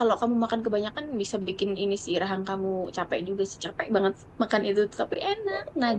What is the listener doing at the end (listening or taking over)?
taking over